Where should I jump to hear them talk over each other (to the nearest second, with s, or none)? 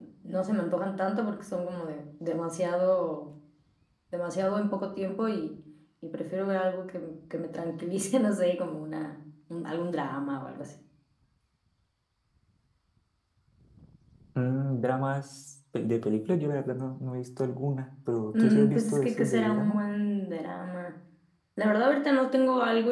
18 s